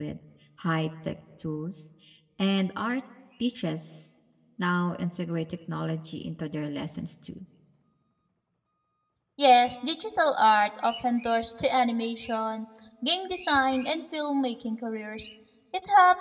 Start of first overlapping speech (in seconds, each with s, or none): none